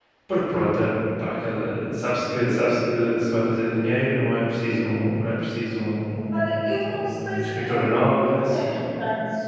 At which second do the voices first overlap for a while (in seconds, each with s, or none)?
6.3 s